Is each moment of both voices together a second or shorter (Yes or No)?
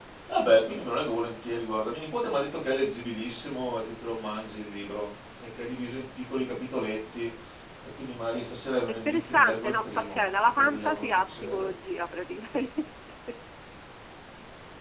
No